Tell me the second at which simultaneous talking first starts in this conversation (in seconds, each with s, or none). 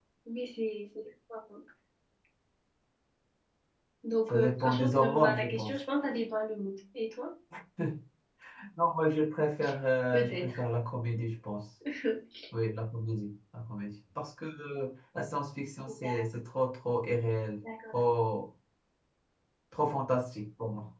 4.3 s